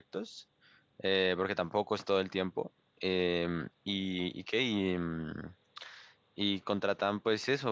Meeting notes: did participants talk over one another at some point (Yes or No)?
No